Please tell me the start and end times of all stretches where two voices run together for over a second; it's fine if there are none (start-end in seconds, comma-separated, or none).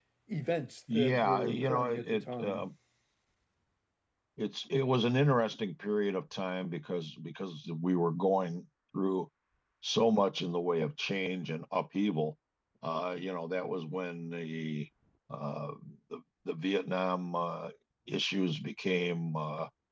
0.9-2.6